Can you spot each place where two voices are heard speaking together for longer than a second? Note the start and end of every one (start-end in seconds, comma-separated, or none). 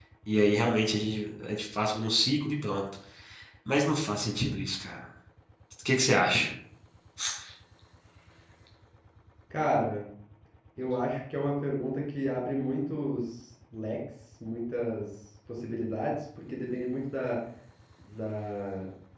none